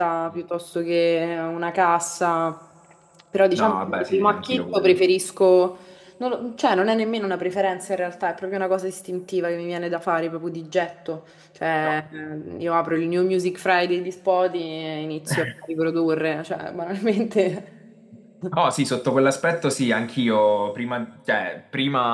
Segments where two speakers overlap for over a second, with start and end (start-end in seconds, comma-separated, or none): 3.5-5.0